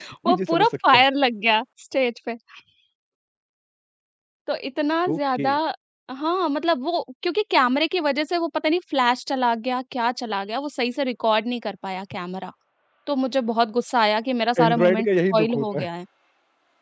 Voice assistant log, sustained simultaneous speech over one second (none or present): present